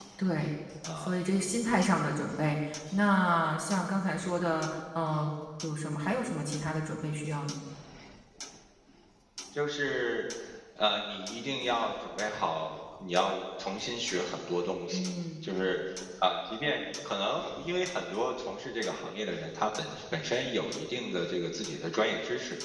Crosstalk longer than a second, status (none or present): none